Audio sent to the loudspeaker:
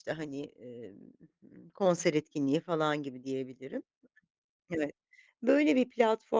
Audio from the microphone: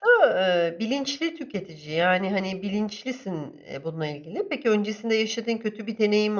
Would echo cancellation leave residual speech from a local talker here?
Yes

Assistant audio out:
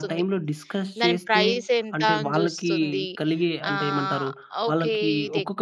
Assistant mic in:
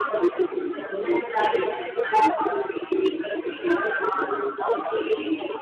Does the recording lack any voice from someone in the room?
Yes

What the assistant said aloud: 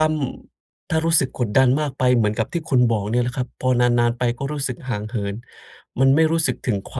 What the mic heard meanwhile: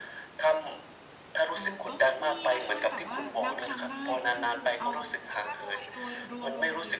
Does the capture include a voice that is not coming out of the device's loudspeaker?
Yes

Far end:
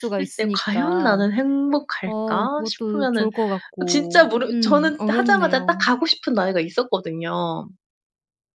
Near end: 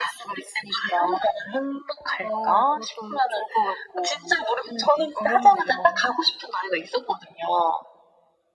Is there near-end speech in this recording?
No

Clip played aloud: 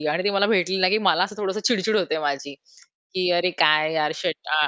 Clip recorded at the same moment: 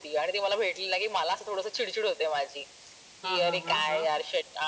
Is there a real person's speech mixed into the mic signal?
Yes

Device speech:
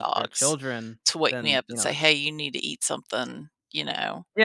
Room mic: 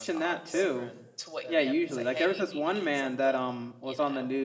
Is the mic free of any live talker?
No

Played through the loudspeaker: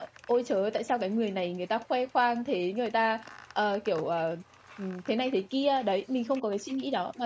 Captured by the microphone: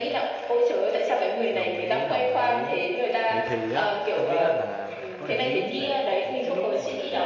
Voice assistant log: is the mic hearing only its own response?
No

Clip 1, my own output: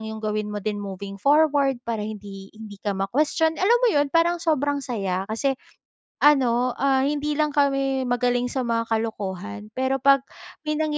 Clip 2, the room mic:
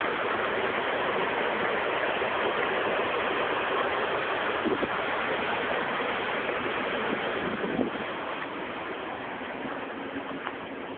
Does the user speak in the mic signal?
No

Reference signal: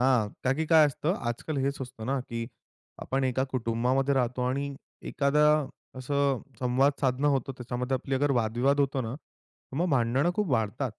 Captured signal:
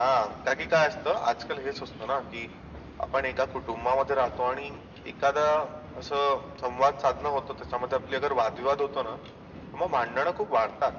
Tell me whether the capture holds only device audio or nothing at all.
Yes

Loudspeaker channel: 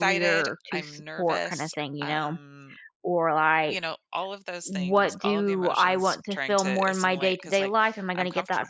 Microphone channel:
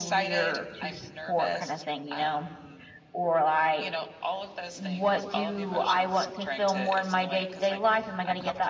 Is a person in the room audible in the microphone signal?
No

